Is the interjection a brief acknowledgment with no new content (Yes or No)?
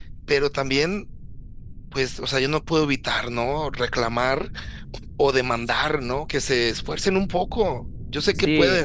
No